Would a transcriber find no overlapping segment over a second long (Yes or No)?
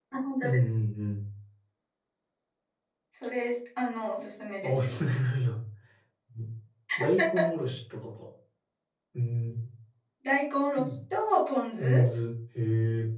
Yes